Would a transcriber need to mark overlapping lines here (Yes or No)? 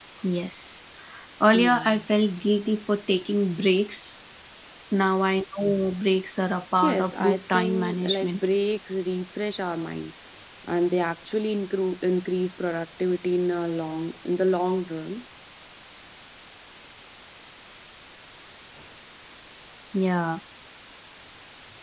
Yes